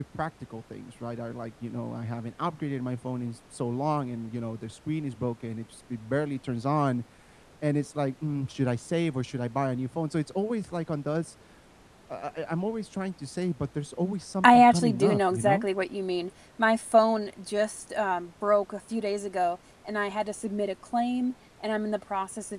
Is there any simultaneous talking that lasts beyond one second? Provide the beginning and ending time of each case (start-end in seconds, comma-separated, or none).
14.4-15.7